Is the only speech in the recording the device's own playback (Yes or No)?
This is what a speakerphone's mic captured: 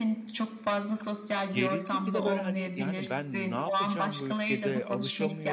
No